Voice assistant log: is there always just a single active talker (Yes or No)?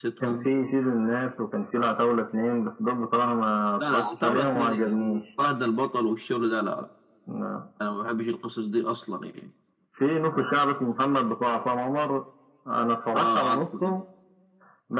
No